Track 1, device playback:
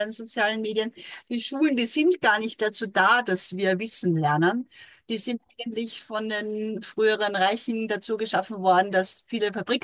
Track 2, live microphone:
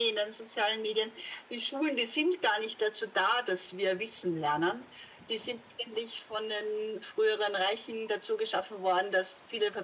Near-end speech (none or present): none